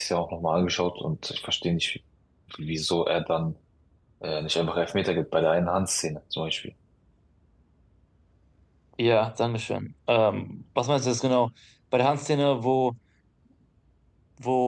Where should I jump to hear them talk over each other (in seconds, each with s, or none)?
none